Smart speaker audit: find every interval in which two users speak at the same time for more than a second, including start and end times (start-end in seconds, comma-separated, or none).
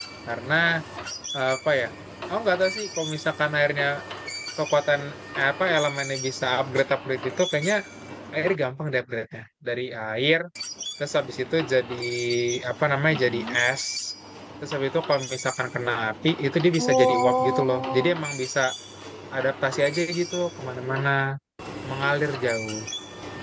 16.8-18.1